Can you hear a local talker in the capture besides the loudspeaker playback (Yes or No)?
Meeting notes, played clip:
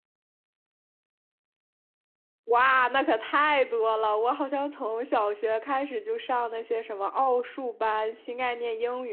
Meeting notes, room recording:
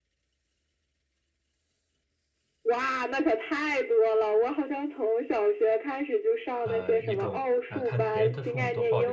Yes